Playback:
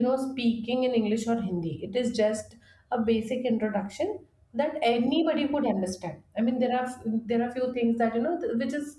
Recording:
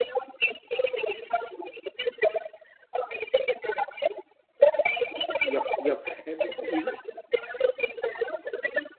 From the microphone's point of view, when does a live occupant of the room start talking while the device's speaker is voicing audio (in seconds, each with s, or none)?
5.4 s